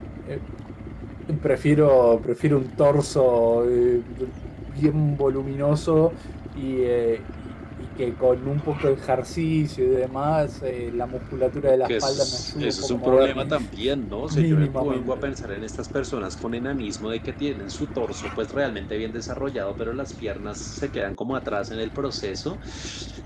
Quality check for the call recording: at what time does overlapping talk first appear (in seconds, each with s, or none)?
11.8 s